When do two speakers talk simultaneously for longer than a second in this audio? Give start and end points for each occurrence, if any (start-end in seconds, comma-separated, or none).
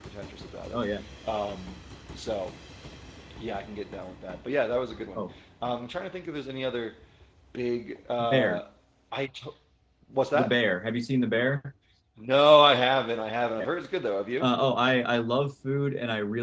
none